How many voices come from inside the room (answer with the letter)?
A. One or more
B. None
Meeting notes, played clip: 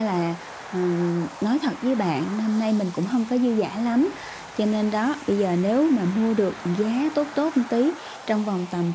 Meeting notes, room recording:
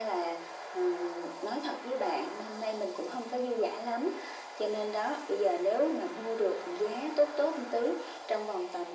B